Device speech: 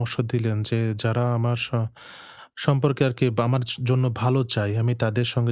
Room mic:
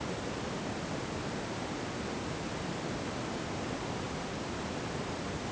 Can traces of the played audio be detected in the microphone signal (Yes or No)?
No